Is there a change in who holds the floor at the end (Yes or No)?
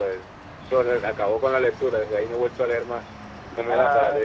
Yes